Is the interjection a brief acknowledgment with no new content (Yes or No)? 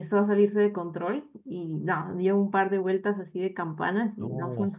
Yes